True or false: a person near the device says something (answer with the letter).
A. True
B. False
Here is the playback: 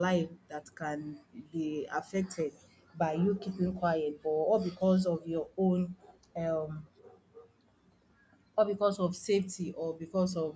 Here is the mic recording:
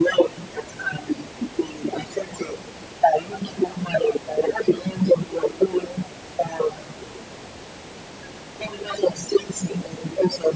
B